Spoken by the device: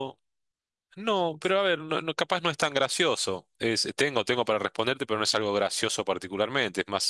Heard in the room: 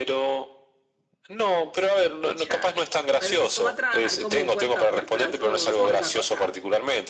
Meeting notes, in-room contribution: present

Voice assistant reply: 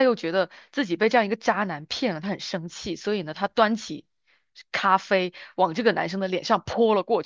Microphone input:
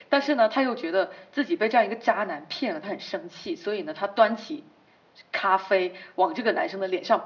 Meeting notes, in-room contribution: none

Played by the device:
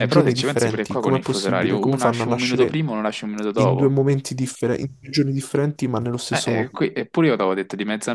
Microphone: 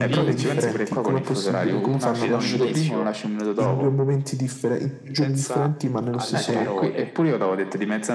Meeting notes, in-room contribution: present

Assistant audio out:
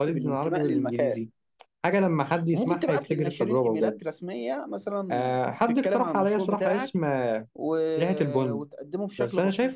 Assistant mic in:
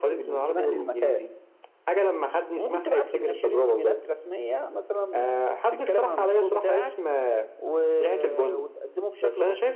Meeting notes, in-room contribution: none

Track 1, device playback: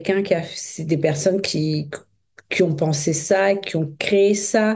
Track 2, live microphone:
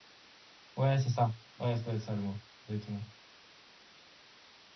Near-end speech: present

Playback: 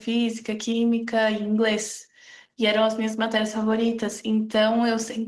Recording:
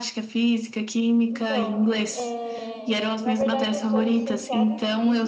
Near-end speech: present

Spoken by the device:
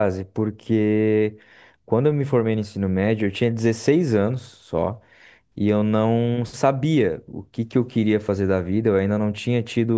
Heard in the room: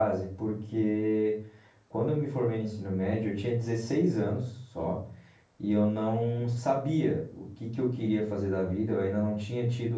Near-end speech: none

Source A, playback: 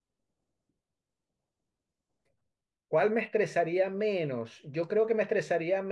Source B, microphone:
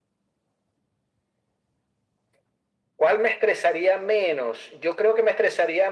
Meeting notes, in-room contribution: none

